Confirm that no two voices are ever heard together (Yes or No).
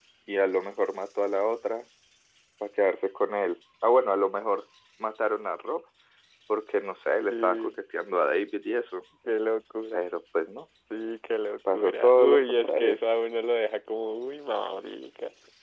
No